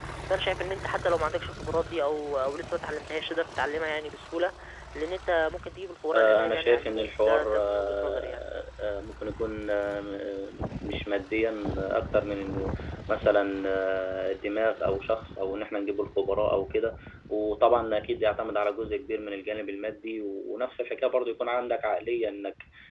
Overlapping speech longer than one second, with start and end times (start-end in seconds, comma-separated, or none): 6.1-8.4